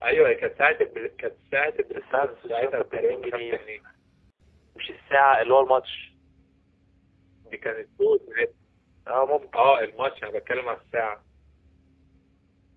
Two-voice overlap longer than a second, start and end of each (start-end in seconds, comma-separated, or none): 1.9-3.6